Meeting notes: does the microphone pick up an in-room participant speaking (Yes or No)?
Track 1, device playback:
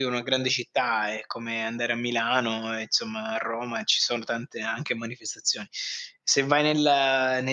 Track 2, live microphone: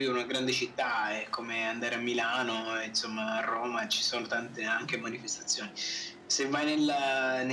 No